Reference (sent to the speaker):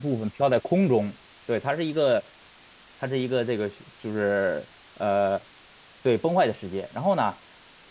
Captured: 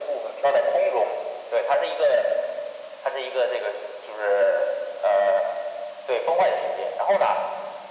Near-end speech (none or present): none